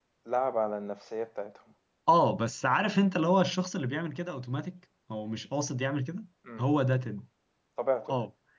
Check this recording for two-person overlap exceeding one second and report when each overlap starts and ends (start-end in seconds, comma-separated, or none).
none